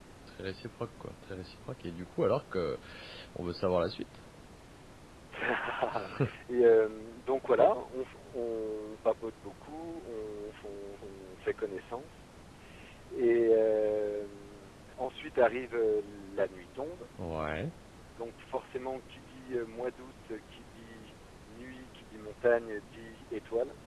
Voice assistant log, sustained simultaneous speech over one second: none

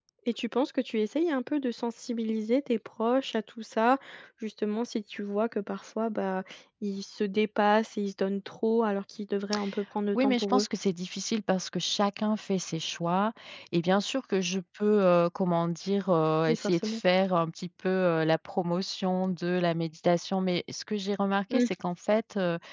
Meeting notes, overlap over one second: none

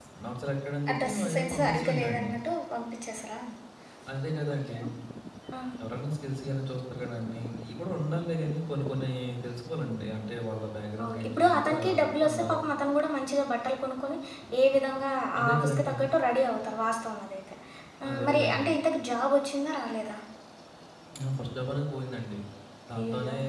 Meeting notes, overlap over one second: present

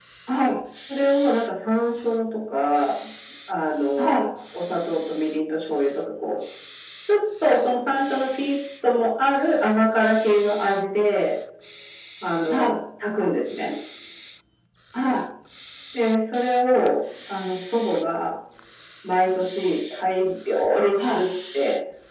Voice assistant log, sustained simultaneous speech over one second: none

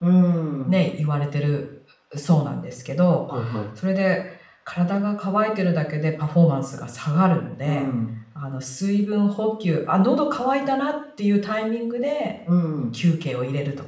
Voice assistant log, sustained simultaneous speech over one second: none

